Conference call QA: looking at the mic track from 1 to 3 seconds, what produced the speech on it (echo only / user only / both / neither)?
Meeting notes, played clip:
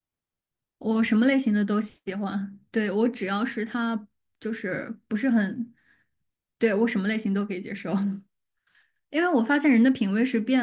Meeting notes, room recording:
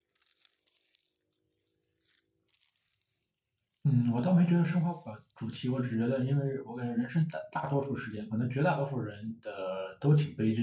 neither